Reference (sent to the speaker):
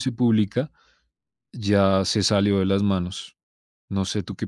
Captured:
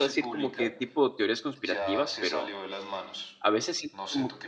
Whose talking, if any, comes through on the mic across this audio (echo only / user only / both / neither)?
both